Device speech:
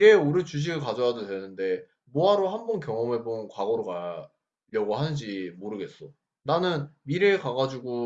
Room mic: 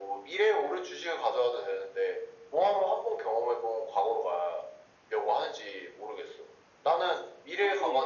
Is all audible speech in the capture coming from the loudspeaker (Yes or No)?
No